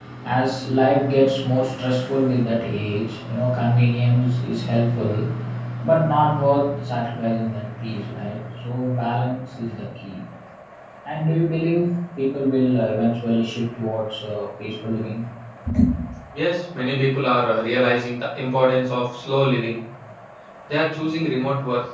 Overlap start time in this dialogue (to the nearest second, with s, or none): none